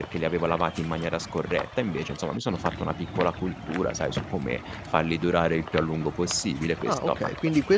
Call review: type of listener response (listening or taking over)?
taking over